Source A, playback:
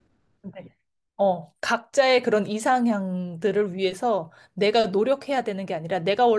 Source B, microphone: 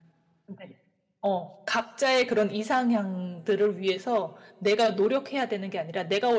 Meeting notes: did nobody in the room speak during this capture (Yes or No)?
Yes